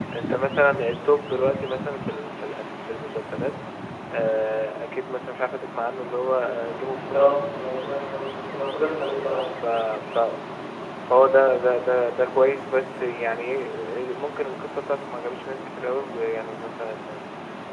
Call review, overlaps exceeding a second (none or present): none